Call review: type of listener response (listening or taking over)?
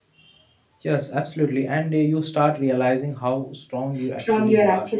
taking over